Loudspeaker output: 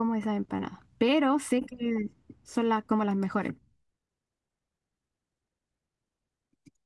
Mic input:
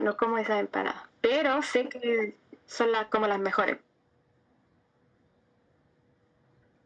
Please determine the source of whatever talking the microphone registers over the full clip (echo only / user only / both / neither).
echo only